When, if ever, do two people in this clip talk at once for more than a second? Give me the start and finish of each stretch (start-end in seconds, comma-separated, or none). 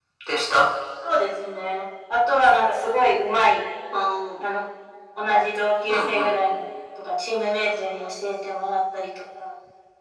none